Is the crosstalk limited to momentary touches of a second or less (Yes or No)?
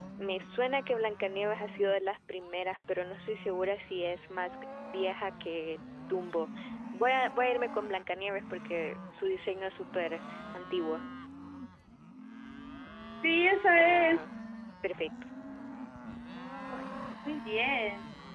Yes